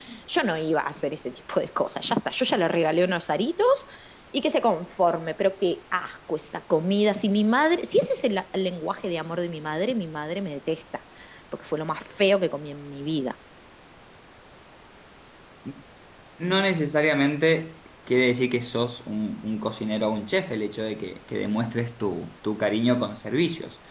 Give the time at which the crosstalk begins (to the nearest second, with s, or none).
none